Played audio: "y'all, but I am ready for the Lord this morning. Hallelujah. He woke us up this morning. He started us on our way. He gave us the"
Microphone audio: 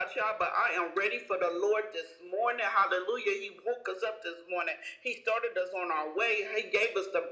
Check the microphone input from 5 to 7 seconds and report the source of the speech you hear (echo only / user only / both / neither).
echo only